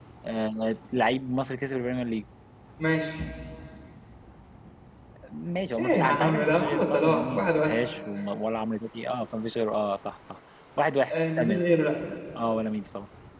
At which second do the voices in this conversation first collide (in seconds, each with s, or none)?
5.8 s